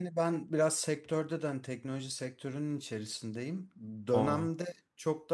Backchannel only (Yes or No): Yes